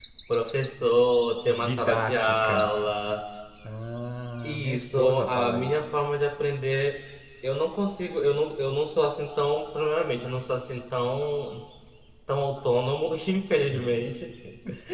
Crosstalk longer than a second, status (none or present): present